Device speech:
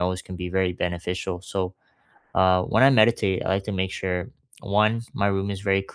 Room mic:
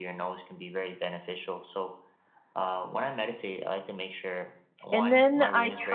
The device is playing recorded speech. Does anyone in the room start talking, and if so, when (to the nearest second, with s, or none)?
5 s